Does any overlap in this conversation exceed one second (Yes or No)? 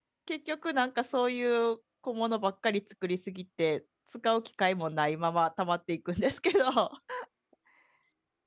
No